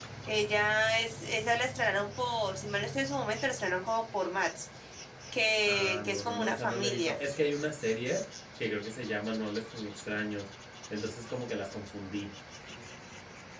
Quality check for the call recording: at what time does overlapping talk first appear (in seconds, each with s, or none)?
5.7 s